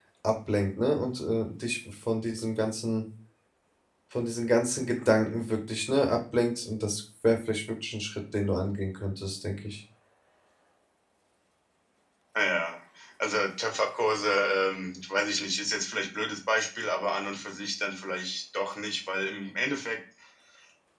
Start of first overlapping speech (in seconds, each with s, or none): none